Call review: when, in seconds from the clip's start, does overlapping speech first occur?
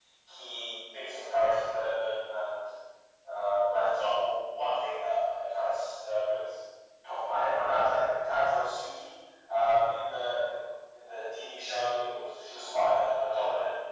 none

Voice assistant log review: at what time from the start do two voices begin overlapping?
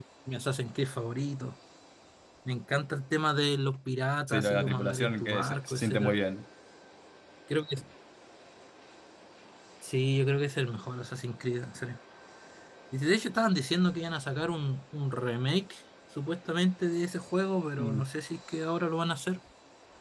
4.3 s

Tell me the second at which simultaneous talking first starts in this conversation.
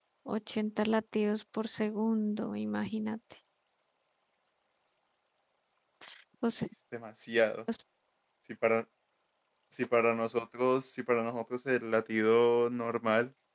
none

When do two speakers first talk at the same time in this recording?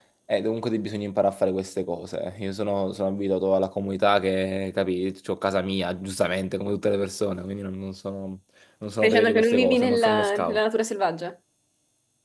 9.0 s

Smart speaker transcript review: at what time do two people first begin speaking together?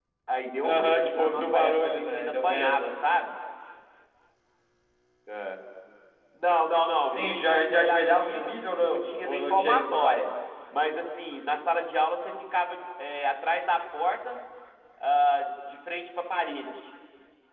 0.6 s

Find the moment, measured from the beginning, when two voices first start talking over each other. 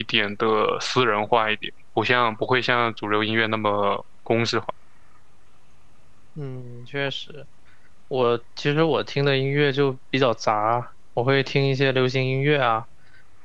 none

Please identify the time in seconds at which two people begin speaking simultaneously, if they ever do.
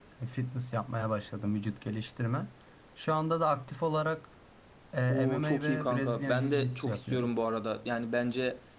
5.1 s

